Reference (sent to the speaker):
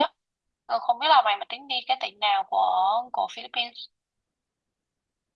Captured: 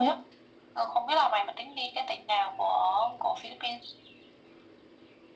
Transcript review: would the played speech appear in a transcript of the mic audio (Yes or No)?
Yes